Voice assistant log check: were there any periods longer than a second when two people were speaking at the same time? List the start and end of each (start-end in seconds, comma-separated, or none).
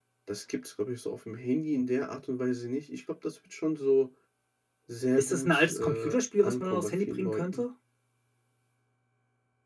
5.2-7.6